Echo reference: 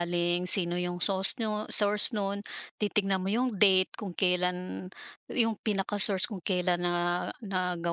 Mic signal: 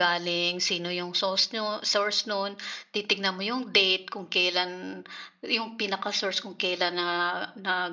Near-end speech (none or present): none